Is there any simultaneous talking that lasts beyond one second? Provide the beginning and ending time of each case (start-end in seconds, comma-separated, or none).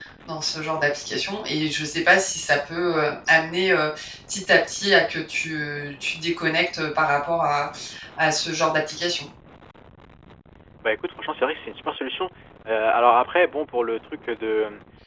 none